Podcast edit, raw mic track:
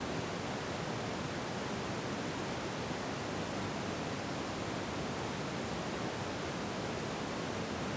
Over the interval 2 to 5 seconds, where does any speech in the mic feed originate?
neither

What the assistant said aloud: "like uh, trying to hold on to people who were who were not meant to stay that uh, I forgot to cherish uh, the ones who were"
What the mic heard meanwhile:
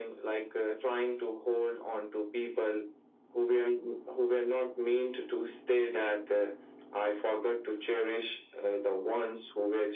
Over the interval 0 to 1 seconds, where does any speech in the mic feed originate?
echo only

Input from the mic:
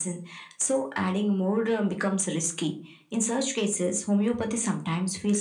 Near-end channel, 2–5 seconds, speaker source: echo only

